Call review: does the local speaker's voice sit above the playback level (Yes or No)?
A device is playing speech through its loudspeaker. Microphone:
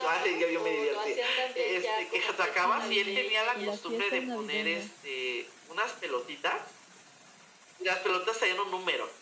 No